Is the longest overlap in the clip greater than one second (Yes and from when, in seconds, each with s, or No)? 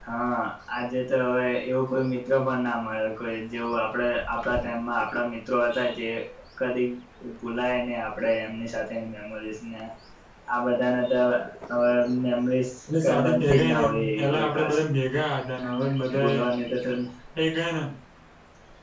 Yes, from 13.0 s